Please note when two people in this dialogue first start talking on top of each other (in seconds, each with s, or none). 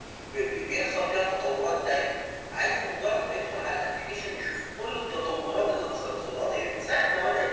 none